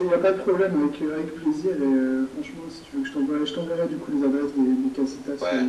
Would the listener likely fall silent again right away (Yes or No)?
Yes